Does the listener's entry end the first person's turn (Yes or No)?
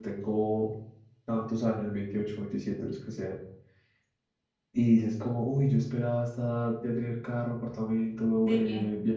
No